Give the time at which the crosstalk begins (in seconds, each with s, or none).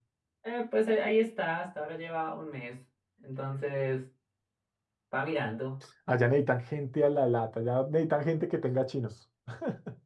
none